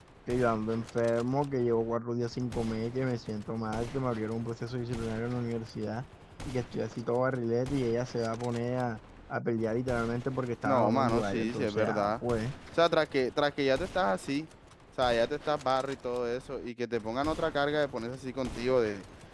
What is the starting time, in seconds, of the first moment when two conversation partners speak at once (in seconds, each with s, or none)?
10.6 s